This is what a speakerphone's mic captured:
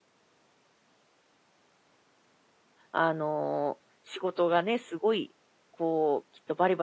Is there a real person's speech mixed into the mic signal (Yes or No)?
Yes